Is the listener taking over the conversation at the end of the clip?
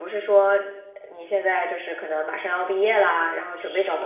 Yes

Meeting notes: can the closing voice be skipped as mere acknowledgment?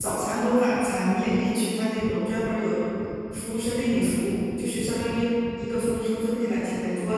Yes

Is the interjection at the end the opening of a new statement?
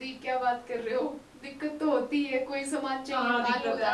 Yes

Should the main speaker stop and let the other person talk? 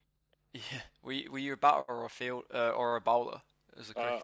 Yes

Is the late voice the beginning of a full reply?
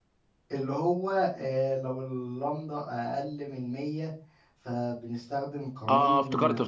Yes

